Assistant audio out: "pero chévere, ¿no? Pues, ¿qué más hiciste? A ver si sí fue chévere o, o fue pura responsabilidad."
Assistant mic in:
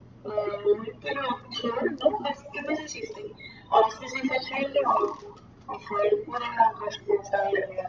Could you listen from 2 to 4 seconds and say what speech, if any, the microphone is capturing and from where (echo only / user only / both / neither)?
echo only